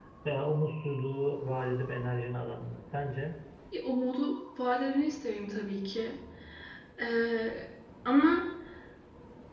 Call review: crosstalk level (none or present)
none